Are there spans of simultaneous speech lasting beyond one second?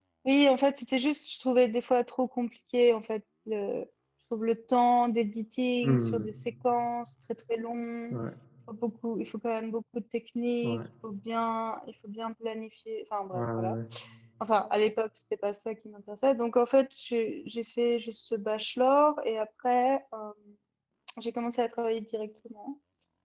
No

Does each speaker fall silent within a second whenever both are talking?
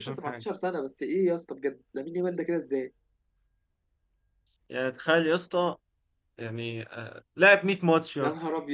Yes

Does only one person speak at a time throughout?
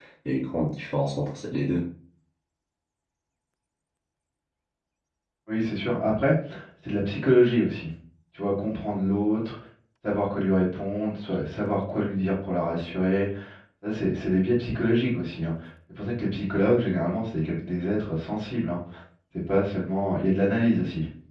Yes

